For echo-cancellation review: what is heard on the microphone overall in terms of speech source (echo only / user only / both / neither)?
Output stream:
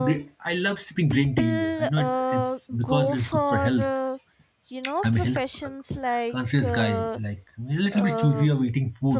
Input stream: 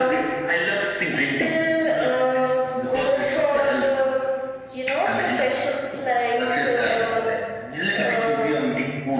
echo only